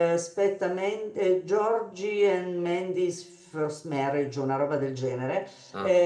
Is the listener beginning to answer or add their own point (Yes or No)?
No